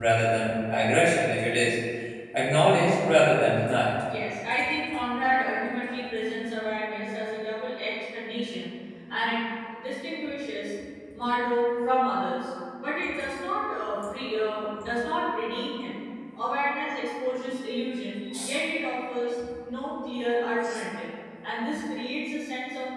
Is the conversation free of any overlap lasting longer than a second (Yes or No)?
Yes